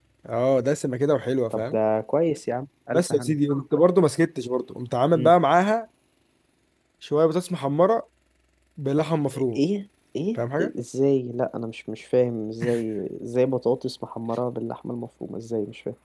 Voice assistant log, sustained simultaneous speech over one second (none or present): none